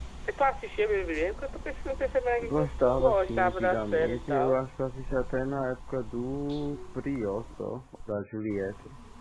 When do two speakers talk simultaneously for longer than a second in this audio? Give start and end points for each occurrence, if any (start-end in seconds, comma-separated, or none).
2.4-4.6